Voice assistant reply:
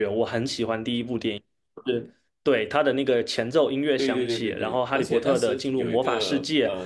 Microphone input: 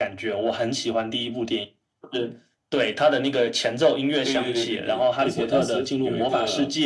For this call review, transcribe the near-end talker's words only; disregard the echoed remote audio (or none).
none